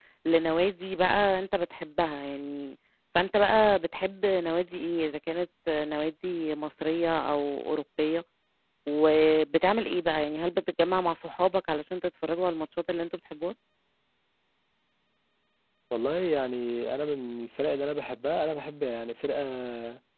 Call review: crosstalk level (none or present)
none